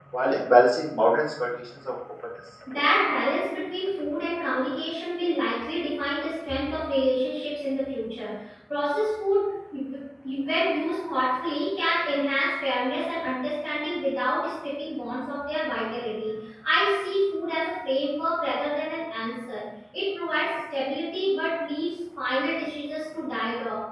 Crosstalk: none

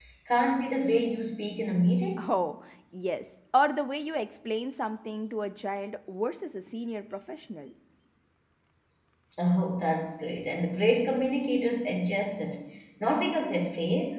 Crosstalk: none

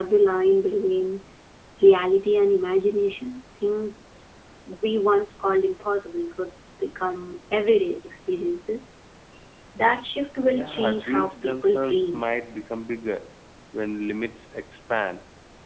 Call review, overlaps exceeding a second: present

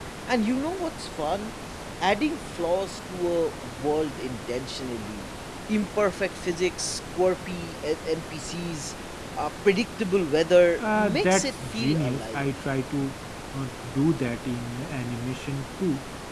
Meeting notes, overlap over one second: present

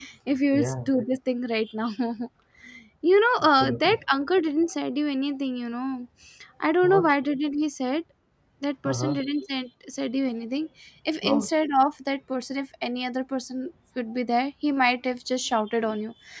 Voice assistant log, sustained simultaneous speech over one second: none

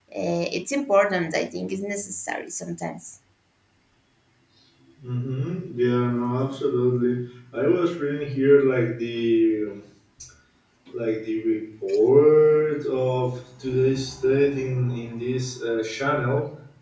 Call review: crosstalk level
none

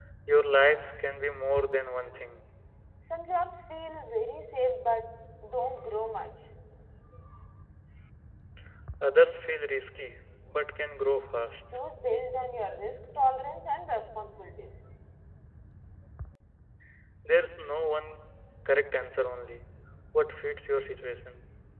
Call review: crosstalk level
none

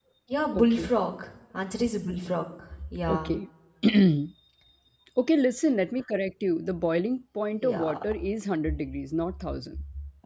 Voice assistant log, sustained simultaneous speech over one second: none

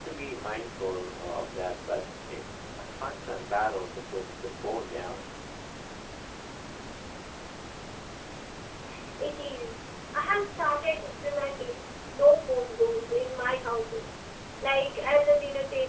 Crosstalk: none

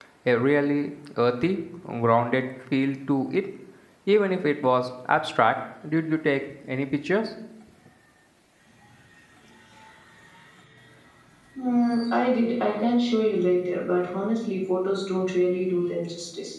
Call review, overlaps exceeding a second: none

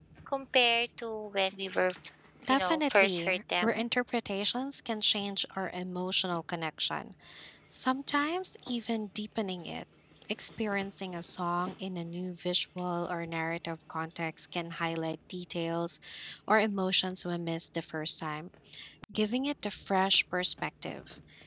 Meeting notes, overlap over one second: present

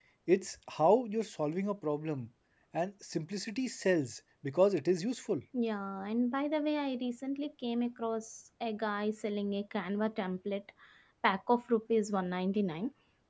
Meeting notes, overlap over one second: none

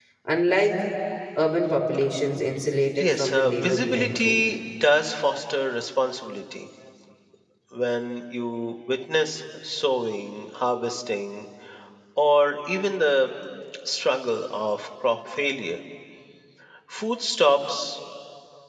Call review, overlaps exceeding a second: present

